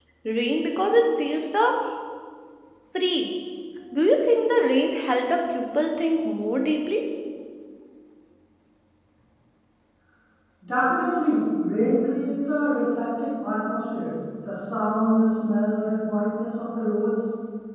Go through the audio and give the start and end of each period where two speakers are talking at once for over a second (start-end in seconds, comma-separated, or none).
none